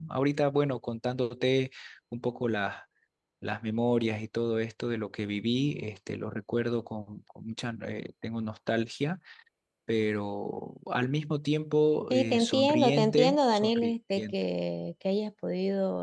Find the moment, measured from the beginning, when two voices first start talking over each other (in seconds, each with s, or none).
12.1 s